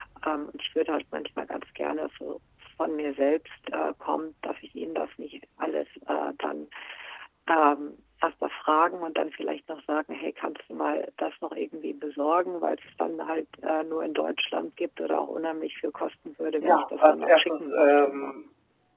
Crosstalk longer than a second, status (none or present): present